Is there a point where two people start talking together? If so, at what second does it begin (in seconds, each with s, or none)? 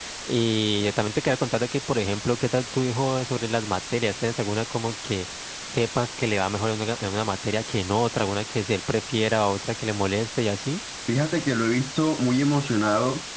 none